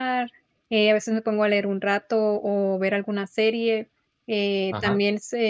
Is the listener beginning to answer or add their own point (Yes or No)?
No